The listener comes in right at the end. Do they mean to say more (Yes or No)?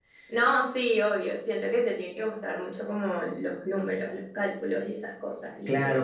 Yes